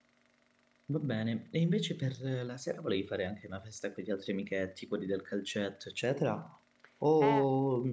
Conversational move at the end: taking over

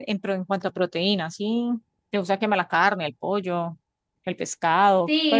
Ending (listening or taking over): taking over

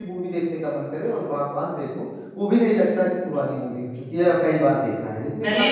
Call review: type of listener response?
taking over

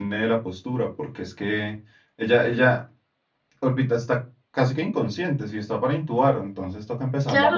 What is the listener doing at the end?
taking over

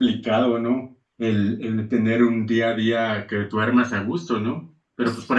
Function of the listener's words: listening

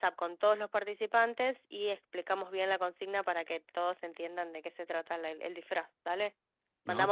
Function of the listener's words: listening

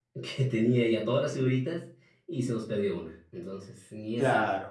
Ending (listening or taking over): taking over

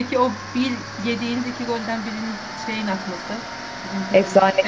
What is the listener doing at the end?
taking over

